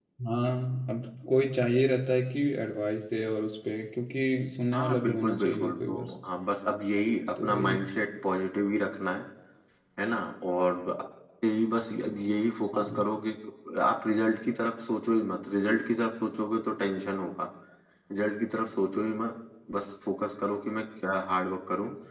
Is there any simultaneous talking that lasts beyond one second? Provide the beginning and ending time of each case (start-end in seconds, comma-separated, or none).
4.7-6.1